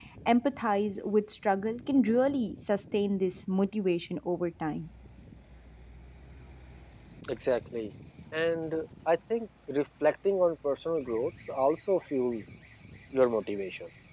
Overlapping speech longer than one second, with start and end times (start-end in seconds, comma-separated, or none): none